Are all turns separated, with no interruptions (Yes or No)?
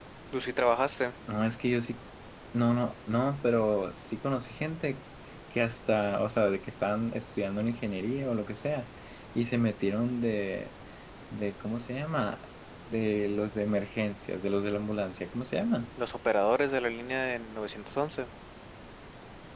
Yes